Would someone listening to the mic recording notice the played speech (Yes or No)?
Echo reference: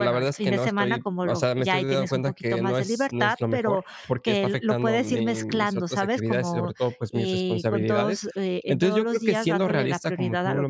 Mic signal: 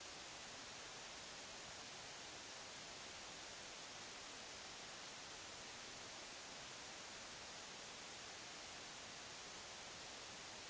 No